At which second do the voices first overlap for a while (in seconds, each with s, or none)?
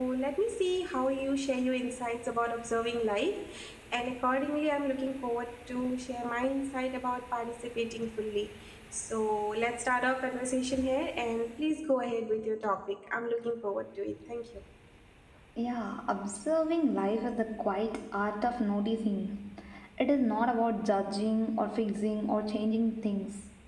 none